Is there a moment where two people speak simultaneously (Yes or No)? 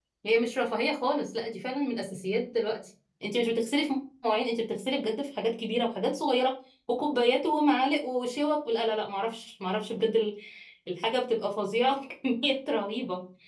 No